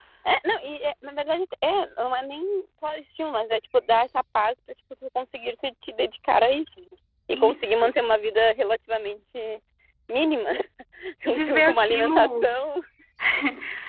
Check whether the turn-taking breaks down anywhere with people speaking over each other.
Yes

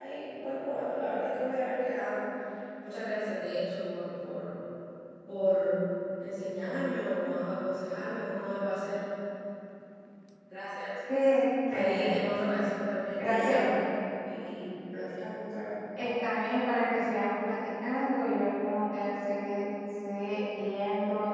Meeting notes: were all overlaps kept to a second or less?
Yes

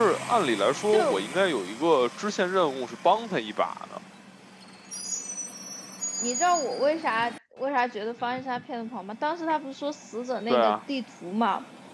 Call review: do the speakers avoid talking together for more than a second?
Yes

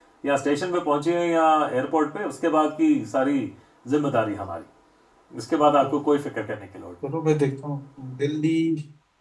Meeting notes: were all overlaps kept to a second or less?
Yes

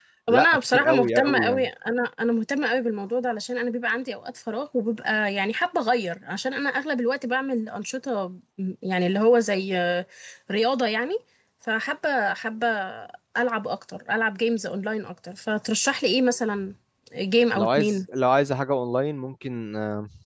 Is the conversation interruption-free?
No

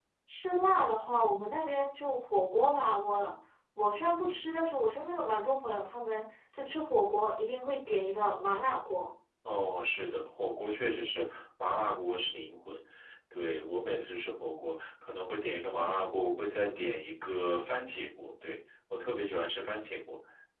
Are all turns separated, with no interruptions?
Yes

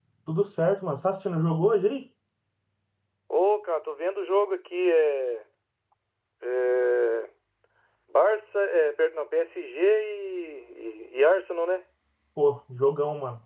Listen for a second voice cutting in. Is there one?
No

